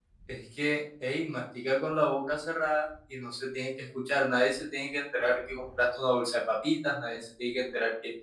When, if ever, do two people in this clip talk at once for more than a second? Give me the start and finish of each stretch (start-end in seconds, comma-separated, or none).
none